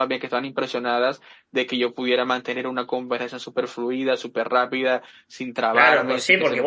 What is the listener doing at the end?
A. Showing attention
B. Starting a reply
B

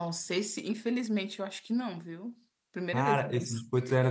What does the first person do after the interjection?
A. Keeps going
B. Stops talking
B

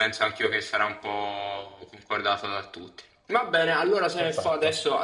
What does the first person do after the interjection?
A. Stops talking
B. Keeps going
B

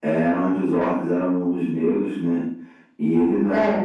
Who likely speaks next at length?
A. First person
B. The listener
A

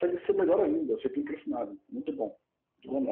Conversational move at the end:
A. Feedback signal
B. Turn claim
B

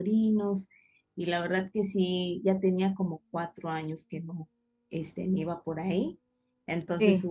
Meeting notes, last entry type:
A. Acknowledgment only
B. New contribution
A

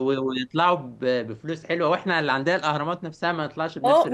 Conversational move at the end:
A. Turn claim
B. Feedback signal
A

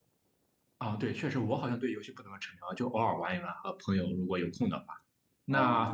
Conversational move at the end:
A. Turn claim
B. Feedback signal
B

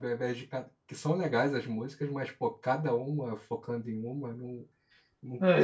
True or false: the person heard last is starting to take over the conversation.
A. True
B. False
A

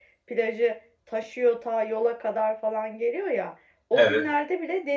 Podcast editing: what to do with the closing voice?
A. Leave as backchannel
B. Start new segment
A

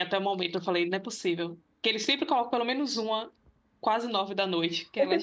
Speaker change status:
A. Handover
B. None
A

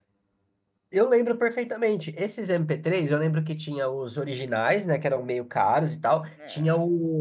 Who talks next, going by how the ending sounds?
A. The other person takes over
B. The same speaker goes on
B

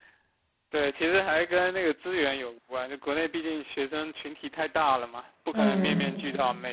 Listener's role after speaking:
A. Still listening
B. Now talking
A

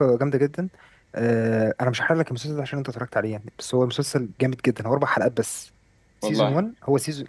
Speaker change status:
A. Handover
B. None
B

